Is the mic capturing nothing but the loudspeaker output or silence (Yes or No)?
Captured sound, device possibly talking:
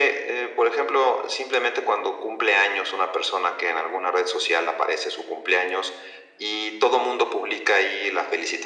Yes